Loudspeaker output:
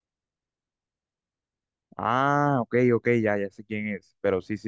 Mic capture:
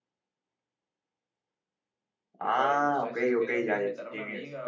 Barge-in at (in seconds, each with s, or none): 2.4 s